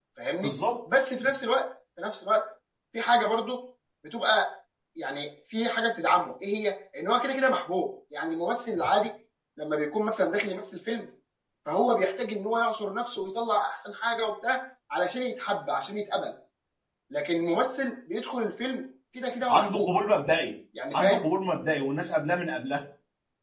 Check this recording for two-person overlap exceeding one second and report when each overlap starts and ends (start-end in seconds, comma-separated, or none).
none